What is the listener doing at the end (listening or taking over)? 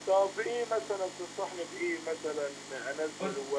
listening